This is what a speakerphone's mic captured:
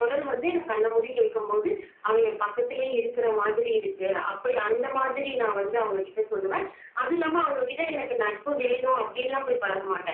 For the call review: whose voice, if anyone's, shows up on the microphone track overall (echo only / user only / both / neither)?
echo only